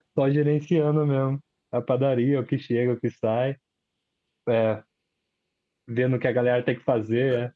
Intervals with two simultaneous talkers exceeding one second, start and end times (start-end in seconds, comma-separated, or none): none